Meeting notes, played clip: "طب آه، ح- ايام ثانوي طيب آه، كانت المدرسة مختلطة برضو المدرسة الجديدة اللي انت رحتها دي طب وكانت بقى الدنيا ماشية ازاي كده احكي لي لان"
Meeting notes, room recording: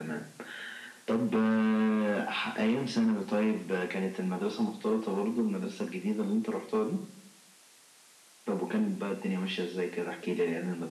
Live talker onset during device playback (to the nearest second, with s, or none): none